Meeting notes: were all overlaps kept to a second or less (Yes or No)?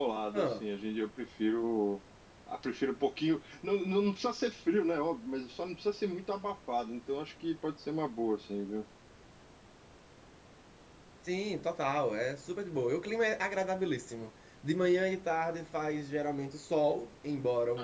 Yes